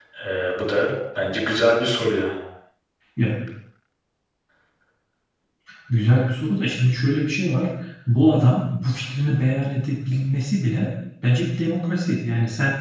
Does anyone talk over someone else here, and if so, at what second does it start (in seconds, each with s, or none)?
none